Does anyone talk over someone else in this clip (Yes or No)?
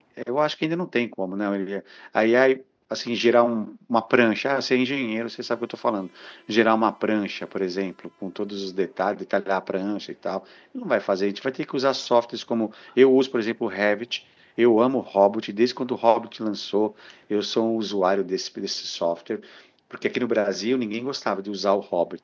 No